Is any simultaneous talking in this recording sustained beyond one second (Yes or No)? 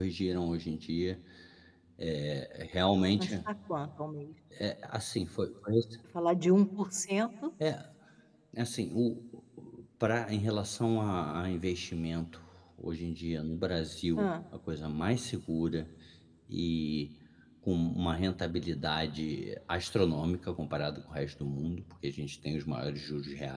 No